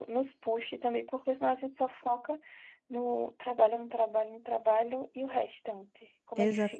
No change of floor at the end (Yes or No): No